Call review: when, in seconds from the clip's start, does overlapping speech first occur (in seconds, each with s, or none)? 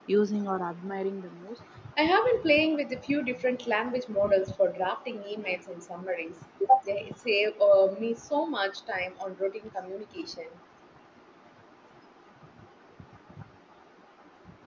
none